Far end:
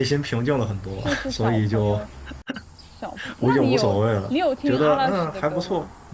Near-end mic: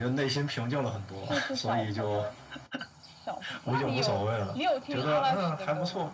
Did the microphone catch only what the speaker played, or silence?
Yes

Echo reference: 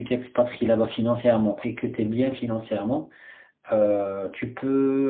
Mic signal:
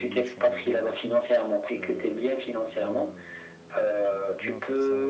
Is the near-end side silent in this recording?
No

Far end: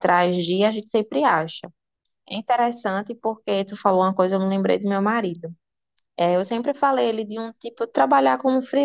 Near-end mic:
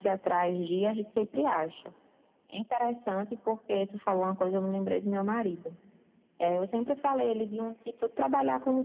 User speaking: No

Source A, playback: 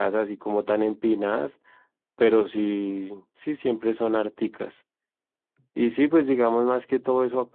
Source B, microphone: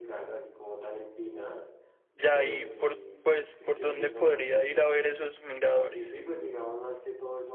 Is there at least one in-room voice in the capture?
Yes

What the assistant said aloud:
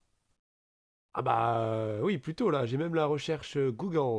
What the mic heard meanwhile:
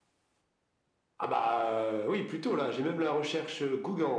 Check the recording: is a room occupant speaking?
No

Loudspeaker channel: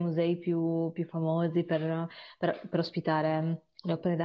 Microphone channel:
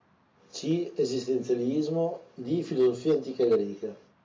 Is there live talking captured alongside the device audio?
Yes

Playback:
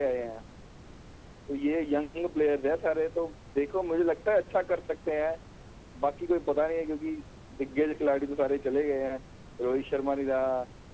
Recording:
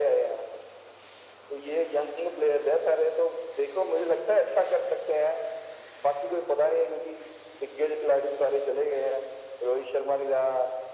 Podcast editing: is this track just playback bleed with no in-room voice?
Yes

